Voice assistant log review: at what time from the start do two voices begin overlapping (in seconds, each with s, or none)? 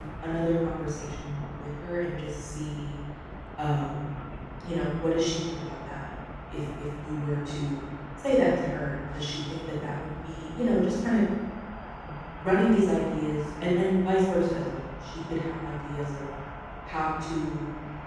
none